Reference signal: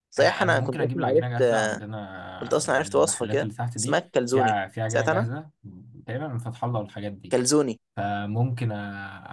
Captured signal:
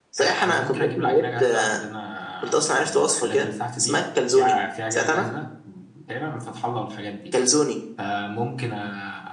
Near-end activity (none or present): none